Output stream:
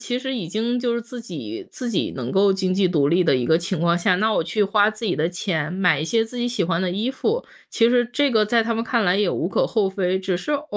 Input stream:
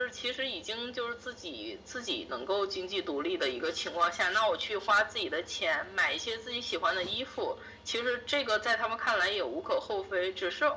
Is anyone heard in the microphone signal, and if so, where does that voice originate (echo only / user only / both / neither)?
echo only